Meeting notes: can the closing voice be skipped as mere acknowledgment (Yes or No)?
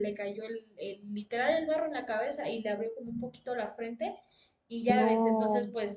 Yes